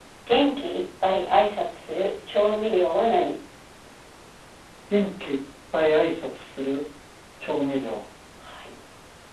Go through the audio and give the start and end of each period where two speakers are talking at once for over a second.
none

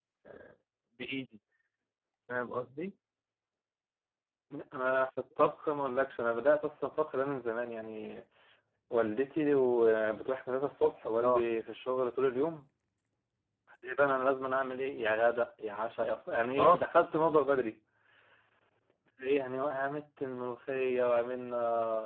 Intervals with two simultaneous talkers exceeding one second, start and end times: none

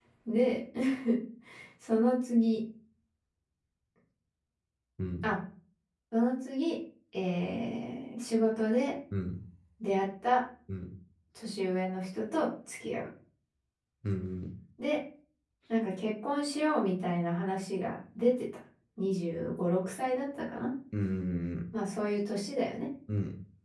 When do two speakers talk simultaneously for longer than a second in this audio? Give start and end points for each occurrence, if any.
none

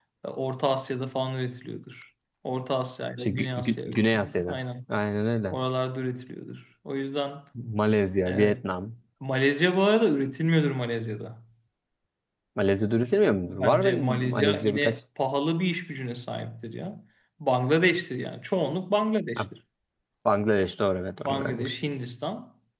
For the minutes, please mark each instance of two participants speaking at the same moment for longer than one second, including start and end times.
3.2-4.6, 13.4-15.0

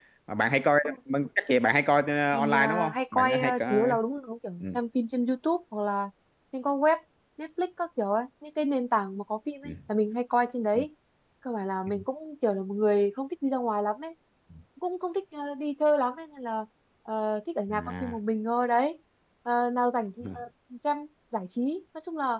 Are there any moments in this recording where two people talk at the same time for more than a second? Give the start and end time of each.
2.3-4.0

